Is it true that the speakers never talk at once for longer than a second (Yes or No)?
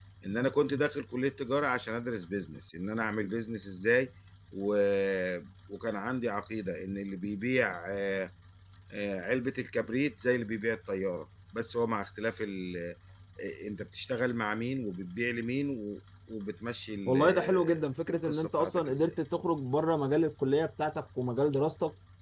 No